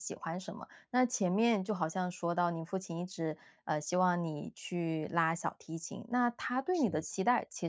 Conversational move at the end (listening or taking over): listening